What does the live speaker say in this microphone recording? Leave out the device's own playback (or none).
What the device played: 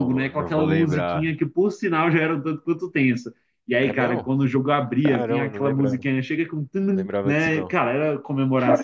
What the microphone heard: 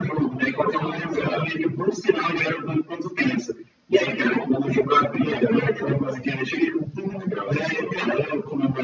none